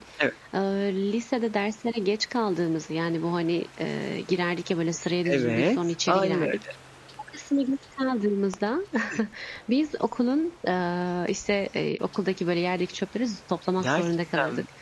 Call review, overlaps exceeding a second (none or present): present